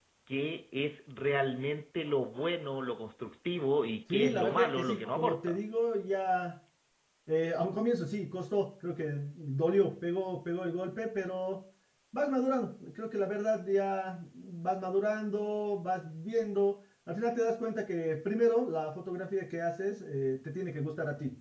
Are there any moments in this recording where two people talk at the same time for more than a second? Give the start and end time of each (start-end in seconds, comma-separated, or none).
4.1-5.6